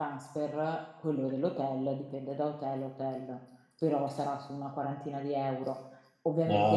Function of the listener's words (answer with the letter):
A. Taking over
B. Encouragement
B